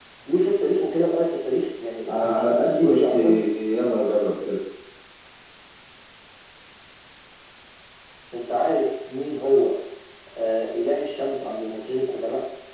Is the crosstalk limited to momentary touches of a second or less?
No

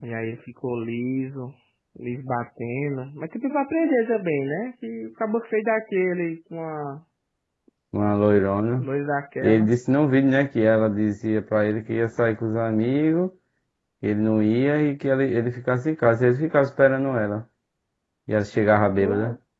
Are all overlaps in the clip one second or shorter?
Yes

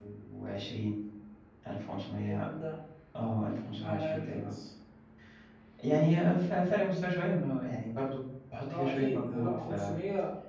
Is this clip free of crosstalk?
No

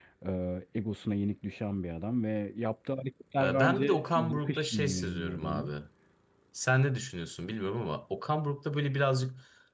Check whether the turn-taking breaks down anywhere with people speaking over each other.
Yes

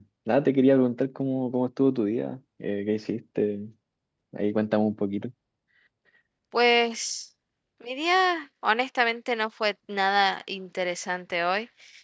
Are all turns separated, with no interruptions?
Yes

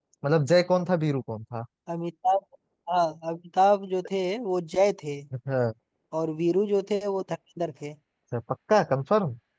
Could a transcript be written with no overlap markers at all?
Yes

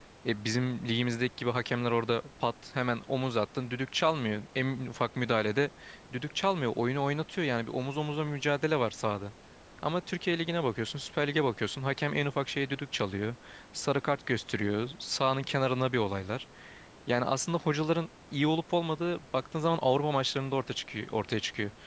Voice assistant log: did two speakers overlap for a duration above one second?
No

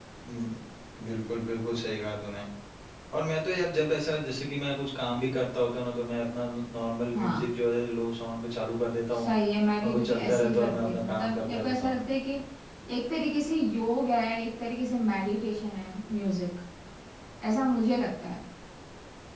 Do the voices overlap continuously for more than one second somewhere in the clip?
Yes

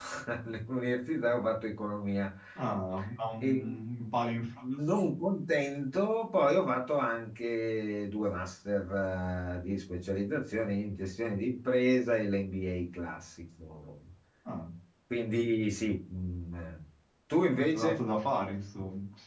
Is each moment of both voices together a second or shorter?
Yes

